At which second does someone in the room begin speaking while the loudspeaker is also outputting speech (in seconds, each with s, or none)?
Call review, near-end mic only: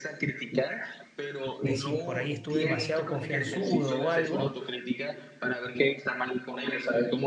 1.6 s